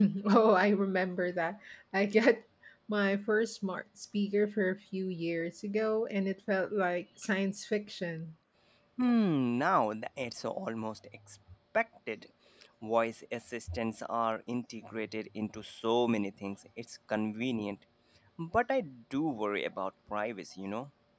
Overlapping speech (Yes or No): No